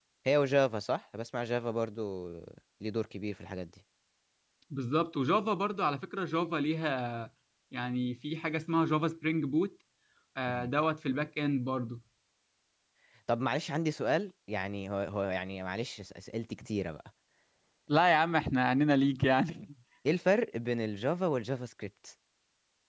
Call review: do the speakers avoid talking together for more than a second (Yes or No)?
Yes